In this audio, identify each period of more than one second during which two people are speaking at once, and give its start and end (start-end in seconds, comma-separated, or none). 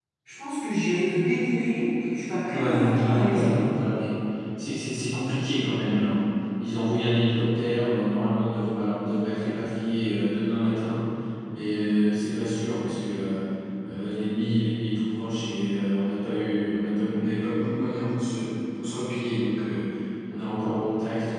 2.5-3.7